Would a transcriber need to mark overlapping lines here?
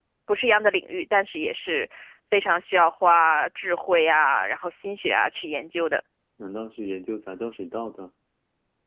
No

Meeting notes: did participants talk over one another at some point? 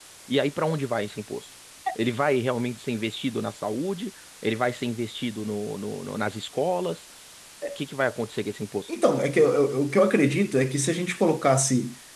No

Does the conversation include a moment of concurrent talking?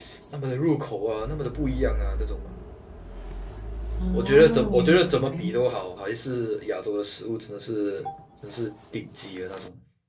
Yes, from 4.1 s

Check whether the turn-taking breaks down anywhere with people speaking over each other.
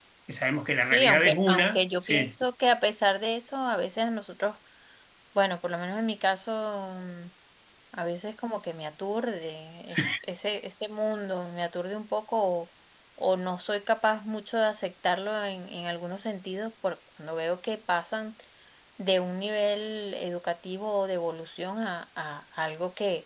Yes, from 0.9 s

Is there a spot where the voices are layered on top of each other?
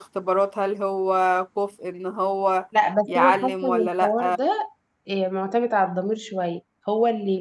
Yes, from 3.1 s

